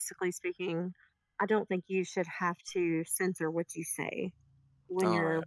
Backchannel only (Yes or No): No